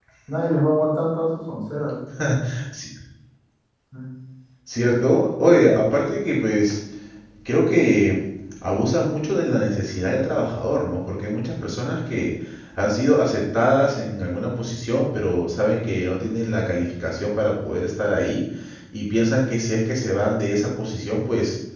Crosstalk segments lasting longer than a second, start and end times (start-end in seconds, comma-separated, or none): none